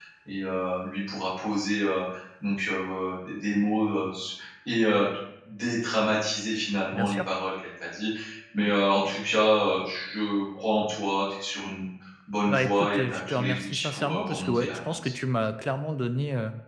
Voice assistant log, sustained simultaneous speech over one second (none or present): present